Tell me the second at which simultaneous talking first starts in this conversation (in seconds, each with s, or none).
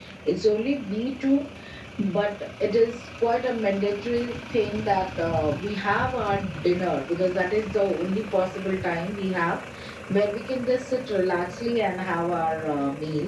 none